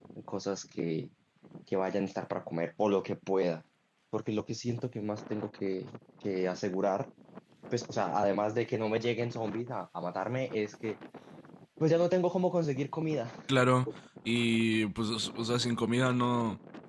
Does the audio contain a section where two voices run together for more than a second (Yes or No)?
No